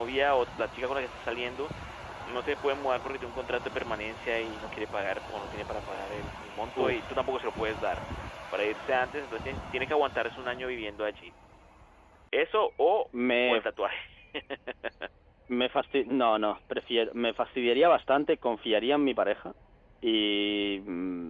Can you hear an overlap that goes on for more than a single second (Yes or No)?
No